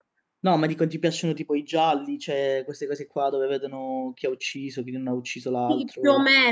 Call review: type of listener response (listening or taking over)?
taking over